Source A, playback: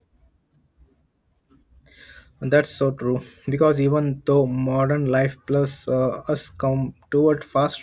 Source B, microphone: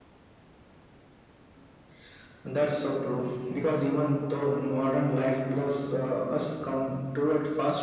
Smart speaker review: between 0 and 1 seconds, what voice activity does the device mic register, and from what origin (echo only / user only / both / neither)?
neither